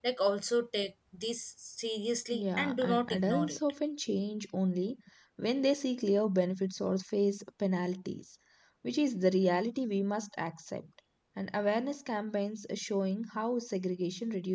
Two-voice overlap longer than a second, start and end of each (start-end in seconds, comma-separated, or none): 2.3-3.6